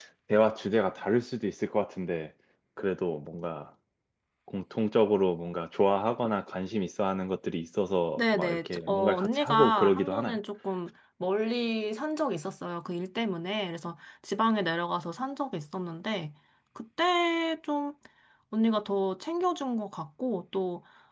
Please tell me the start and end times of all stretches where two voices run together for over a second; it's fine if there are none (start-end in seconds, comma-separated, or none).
8.2-10.4